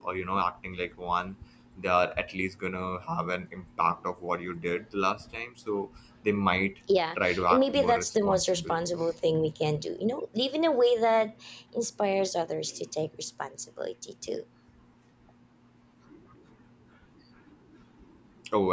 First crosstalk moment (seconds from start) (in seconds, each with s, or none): 7.2 s